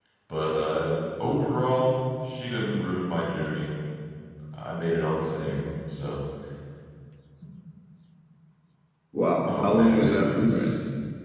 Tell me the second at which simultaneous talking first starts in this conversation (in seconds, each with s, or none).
9.5 s